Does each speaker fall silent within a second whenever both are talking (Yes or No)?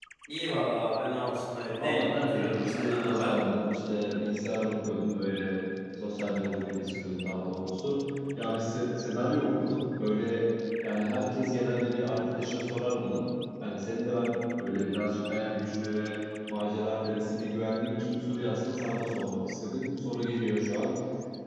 No